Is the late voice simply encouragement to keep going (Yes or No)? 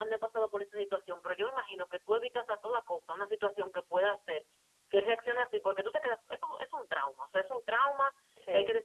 Yes